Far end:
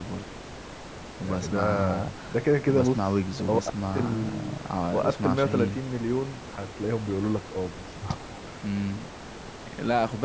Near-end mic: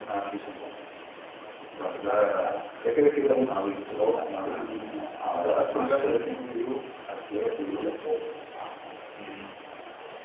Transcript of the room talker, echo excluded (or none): none